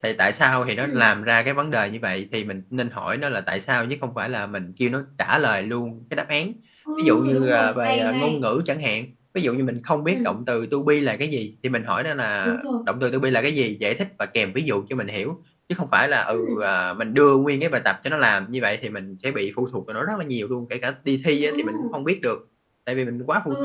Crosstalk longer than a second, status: present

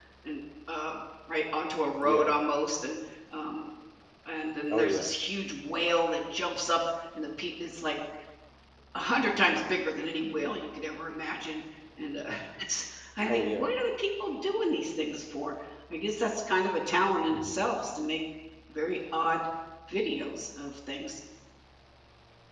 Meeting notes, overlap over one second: none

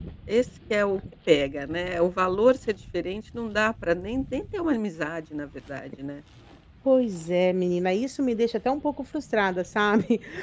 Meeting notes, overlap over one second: none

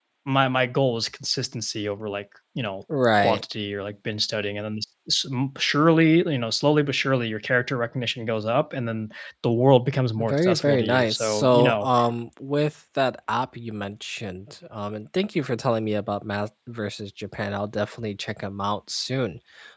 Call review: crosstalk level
present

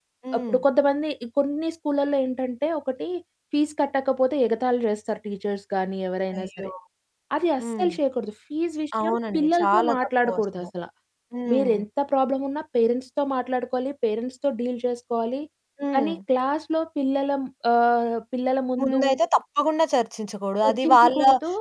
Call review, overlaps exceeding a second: present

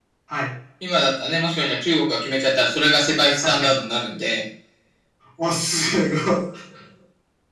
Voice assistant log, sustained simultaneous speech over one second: none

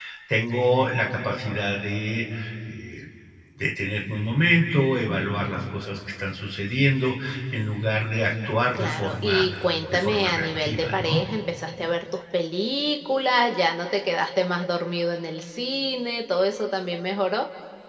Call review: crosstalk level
present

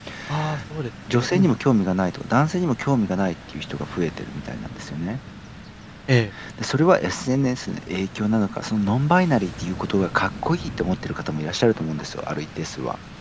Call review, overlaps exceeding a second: none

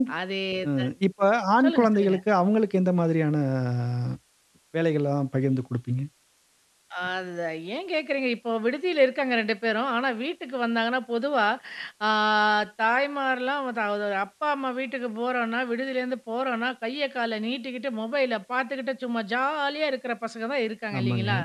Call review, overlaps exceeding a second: none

